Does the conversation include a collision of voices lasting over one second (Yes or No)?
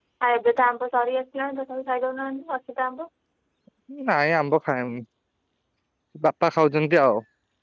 No